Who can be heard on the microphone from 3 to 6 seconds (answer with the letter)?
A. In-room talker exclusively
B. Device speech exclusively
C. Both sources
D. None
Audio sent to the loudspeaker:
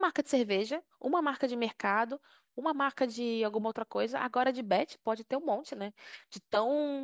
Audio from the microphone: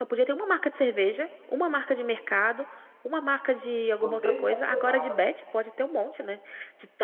C